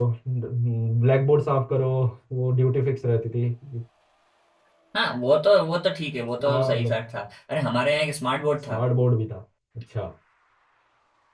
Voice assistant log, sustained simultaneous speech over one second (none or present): none